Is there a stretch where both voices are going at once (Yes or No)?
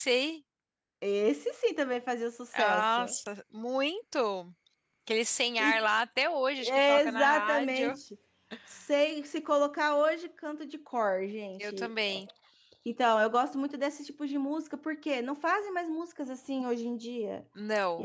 Yes